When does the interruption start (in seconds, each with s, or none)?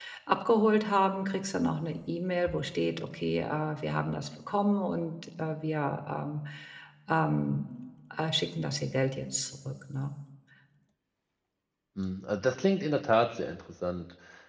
none